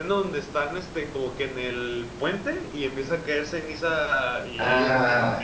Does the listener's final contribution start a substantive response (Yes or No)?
Yes